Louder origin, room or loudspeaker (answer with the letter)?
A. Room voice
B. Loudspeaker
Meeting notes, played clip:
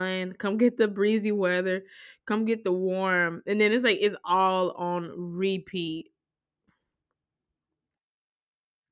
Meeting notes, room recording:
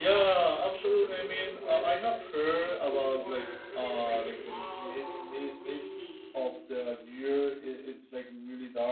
A